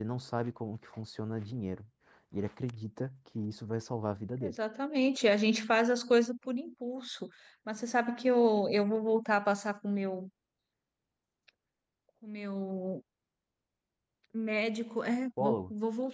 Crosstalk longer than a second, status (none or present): none